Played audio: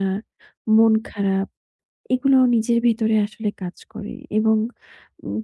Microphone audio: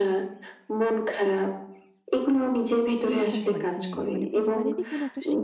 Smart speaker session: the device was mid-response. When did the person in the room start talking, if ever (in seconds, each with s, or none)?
3.1 s